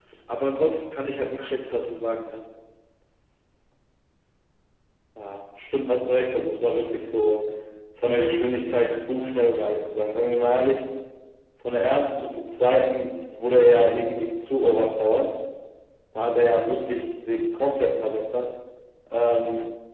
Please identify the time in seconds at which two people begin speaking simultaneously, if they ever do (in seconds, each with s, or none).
none